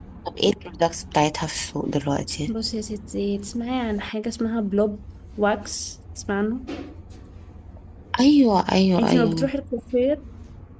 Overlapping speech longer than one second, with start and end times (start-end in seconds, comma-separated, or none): none